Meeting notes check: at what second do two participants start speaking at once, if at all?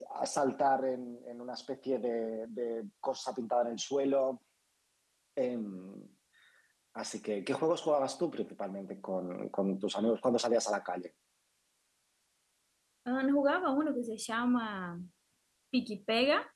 none

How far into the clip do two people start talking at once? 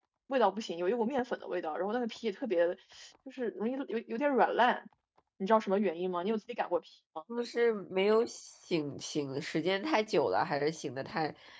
none

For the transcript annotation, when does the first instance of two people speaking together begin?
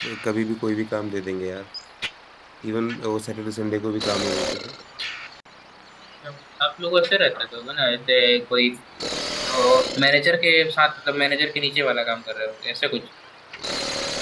none

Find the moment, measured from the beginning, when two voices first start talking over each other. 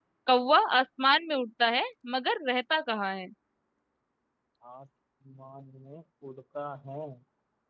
none

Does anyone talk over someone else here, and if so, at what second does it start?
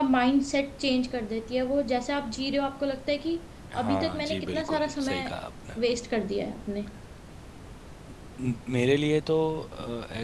3.8 s

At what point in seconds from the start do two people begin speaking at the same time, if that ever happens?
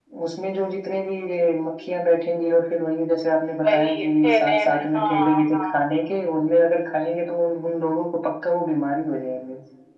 3.6 s

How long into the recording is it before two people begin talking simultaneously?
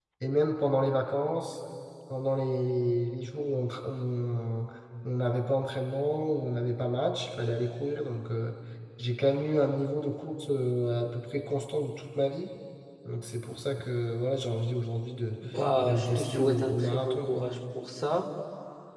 15.8 s

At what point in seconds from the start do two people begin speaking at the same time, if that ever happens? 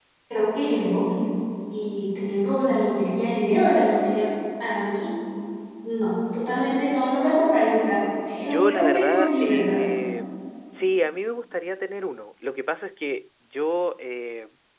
8.4 s

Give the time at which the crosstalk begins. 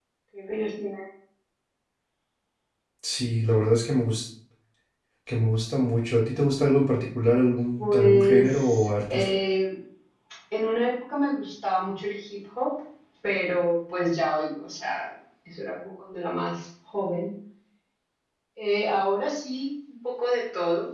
7.8 s

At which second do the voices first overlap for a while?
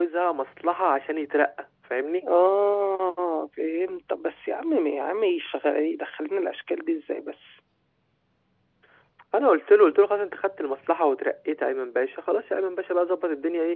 none

